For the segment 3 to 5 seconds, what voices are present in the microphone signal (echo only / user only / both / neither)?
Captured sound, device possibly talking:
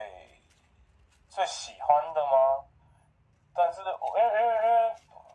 echo only